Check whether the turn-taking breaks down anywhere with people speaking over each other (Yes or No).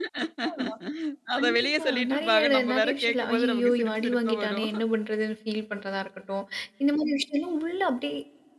Yes